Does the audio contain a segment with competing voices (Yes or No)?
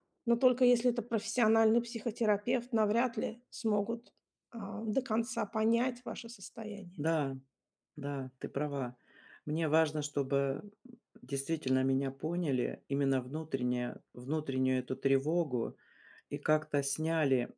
No